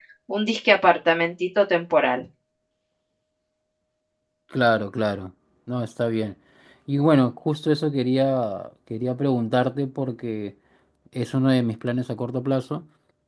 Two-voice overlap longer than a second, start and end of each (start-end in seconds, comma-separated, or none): none